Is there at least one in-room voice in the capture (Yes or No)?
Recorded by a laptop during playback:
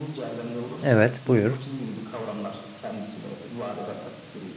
Yes